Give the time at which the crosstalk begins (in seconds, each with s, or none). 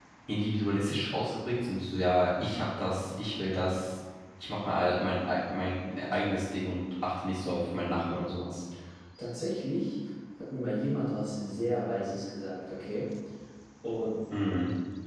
none